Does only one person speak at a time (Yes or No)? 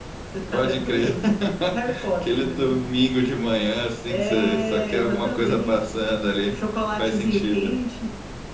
No